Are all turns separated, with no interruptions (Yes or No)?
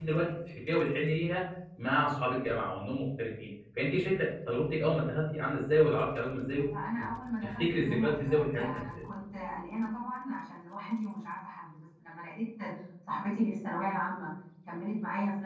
No